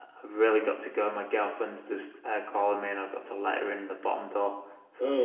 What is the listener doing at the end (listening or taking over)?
taking over